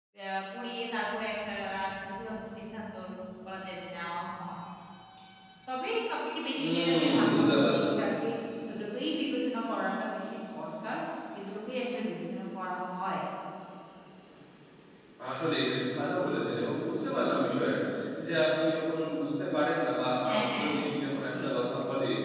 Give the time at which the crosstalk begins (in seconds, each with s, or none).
6.6 s